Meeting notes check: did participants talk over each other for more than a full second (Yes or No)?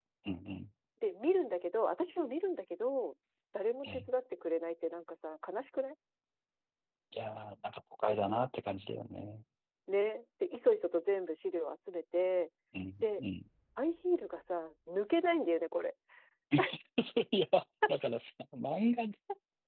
No